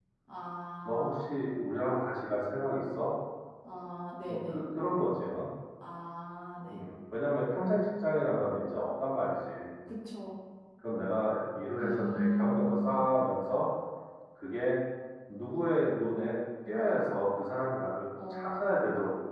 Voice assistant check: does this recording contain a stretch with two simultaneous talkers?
Yes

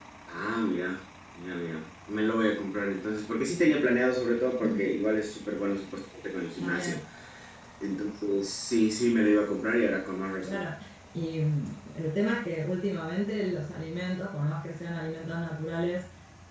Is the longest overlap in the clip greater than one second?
No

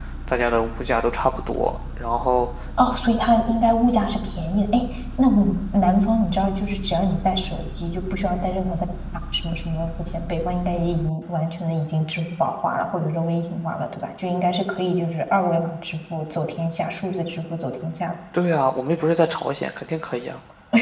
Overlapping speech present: No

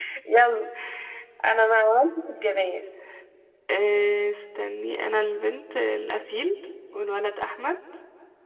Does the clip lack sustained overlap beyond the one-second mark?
Yes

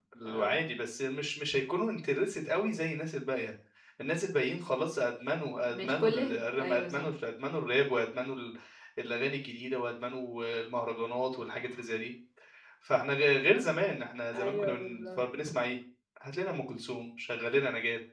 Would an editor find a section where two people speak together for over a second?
Yes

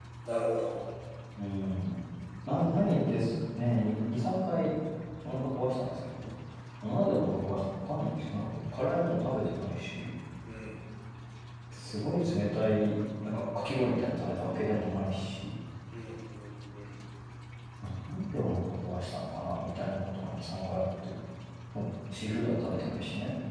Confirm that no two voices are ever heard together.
Yes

